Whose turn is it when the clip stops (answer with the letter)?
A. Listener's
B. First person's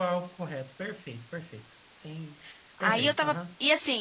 A